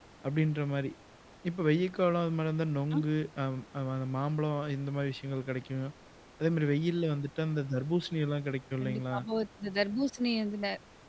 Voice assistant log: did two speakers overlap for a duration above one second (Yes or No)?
No